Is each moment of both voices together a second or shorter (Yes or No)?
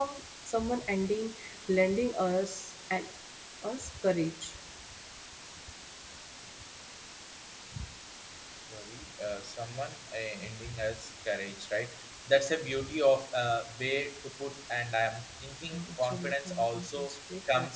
No